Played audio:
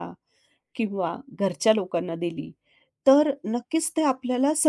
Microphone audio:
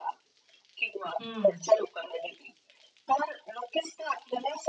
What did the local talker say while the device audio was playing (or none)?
हं.